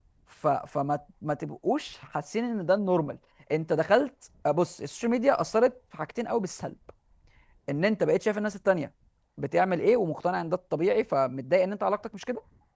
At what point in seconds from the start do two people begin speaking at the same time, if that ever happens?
none

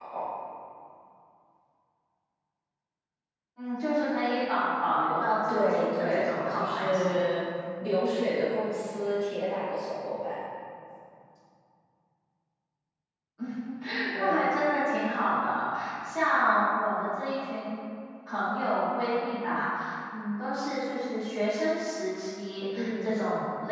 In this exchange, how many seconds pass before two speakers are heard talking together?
5.5 s

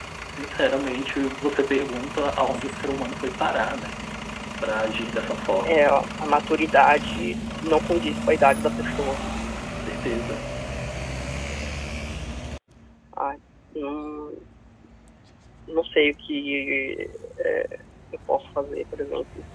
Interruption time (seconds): none

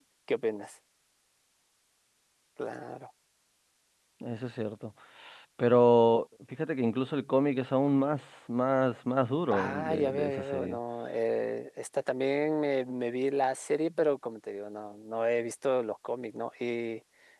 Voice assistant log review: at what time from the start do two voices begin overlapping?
9.5 s

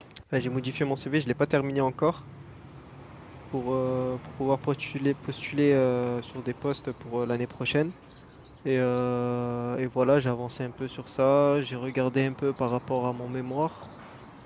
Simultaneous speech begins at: none

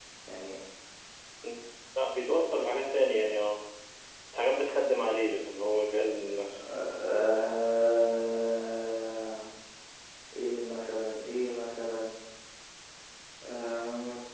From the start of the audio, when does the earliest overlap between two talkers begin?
none

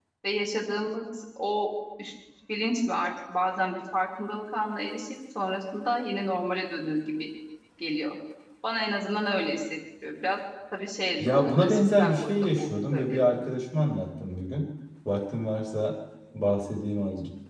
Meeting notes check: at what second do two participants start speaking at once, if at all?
11.2 s

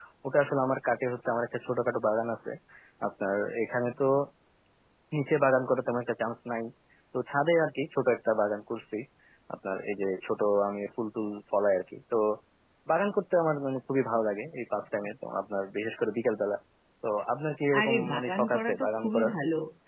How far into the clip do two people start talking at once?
17.8 s

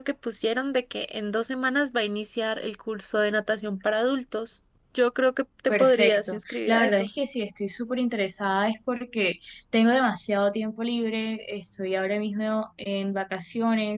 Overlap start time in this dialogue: 5.7 s

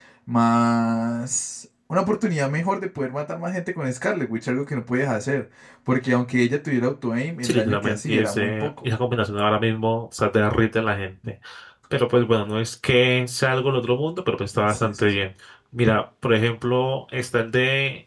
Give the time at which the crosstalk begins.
7.4 s

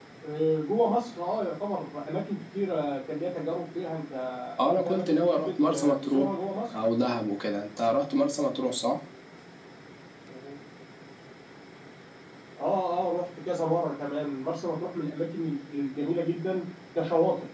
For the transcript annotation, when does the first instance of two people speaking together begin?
4.6 s

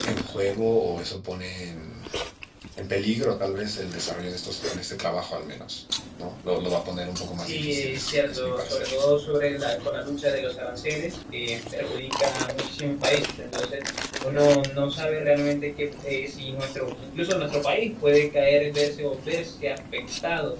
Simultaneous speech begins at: 7.4 s

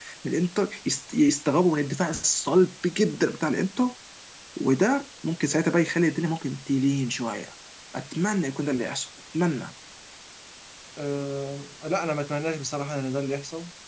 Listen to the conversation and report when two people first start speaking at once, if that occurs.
none

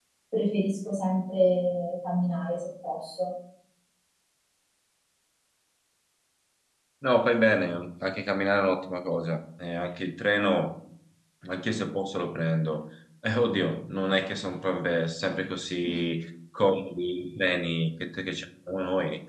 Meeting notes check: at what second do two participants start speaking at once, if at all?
none

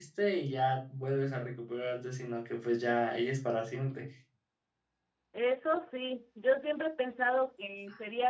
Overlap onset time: none

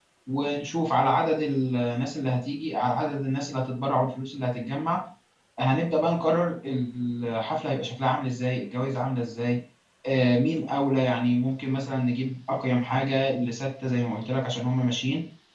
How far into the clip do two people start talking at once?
none

